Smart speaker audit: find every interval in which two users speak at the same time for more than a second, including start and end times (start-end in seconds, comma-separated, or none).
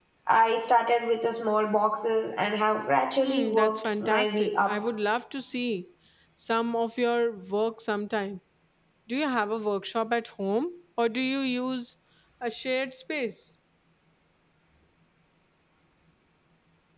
3.2-4.7